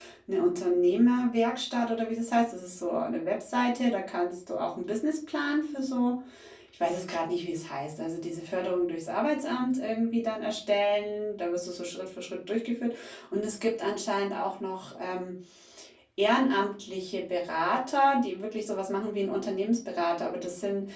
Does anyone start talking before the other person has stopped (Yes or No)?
No